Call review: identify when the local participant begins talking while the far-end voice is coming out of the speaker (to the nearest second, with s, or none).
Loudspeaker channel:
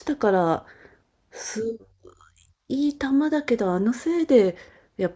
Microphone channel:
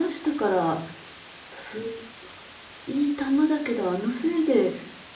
none